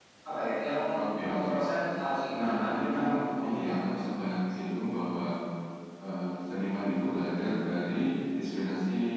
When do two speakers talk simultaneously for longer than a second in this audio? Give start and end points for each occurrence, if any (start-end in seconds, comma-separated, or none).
2.3-3.7